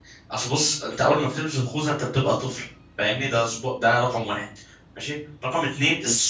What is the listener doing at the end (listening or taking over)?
listening